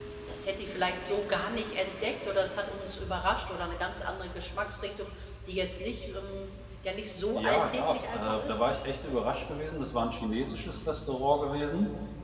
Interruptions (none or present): present